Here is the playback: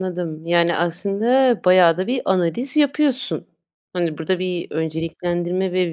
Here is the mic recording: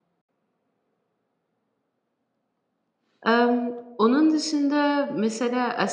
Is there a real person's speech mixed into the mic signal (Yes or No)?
Yes